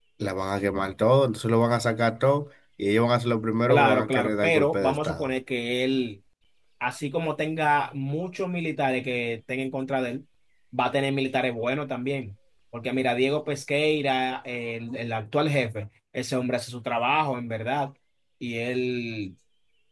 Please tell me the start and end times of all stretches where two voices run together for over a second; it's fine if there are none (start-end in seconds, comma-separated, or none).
3.7-5.3